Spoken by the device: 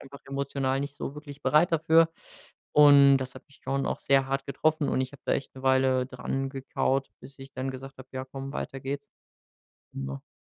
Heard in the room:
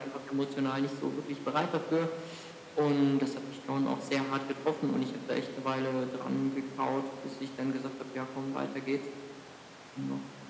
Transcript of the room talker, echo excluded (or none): none